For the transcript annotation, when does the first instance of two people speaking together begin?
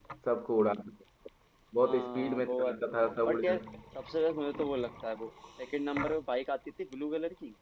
1.8 s

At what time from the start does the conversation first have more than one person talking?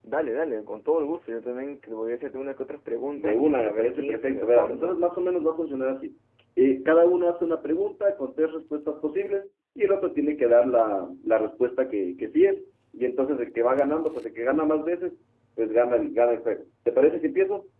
3.2 s

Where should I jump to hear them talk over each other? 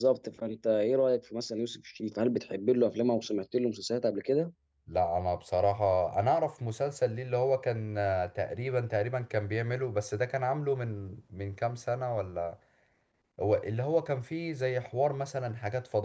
none

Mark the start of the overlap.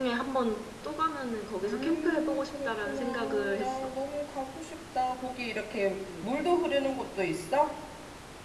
1.6 s

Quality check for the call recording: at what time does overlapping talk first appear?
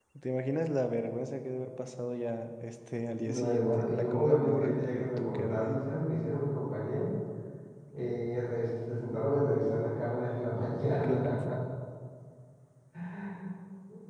3.2 s

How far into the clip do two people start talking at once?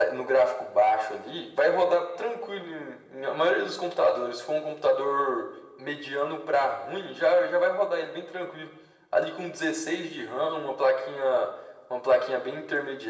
none

